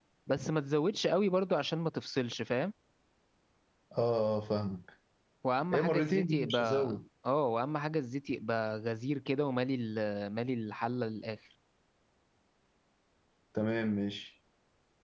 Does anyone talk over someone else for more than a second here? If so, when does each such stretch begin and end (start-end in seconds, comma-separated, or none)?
5.7-7.0